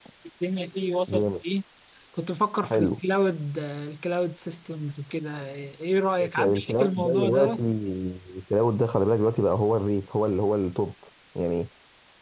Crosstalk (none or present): present